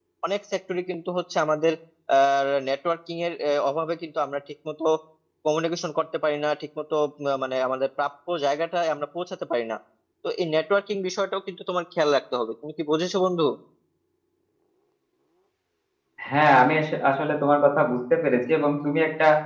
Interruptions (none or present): none